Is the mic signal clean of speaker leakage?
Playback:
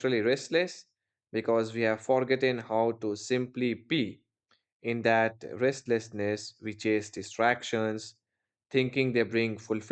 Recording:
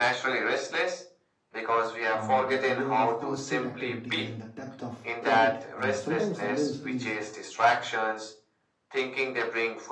No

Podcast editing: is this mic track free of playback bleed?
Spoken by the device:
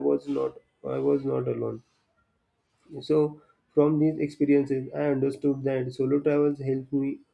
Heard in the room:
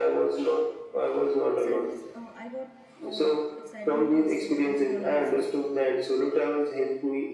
No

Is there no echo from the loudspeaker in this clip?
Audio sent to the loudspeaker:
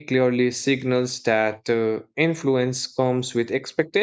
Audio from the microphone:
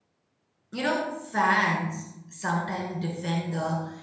Yes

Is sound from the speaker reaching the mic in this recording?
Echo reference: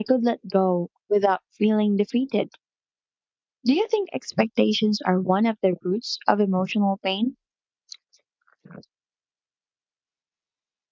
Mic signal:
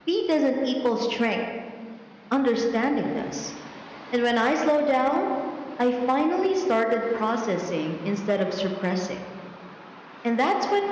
No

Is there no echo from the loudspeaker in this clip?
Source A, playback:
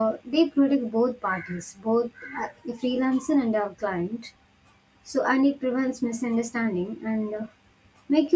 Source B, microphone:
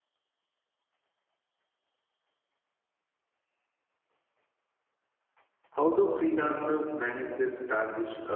Yes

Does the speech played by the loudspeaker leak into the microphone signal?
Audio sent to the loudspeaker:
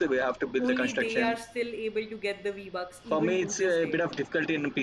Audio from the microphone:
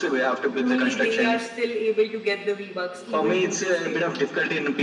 Yes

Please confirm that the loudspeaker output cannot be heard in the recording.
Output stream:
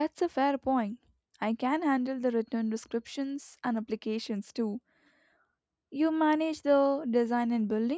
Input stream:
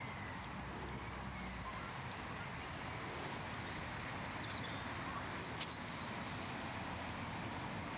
Yes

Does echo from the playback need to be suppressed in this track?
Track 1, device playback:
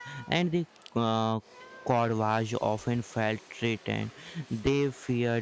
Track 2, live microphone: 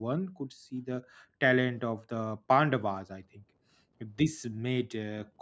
No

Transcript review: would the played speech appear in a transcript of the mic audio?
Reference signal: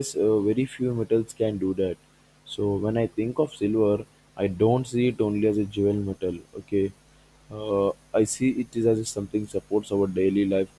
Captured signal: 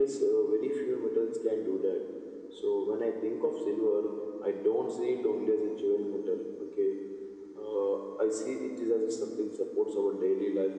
Yes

